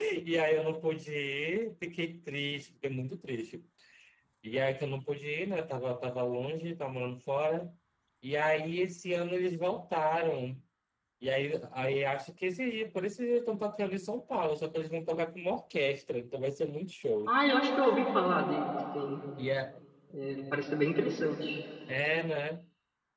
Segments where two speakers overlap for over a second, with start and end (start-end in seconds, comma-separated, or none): none